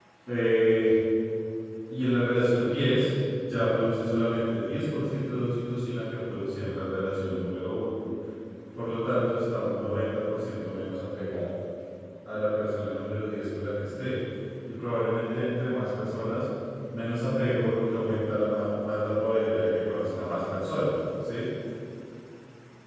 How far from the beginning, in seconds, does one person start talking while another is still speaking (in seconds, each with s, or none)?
none